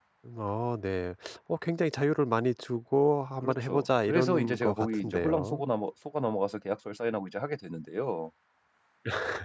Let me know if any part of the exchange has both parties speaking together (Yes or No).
Yes